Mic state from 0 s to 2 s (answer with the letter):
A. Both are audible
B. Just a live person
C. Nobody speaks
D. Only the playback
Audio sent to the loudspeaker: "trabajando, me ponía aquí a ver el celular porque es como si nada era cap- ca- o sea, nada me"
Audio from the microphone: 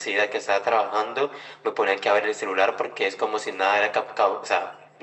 D